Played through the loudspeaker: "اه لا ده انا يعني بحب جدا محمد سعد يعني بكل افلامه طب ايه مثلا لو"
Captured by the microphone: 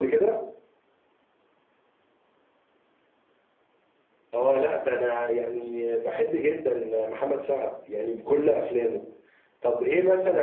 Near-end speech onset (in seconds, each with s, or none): none